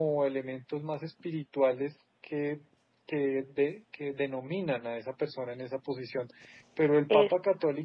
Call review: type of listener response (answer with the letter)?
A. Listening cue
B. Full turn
A